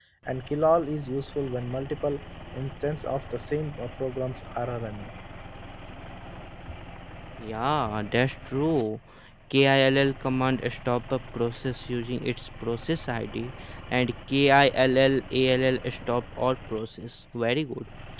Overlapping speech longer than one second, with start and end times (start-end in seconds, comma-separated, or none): none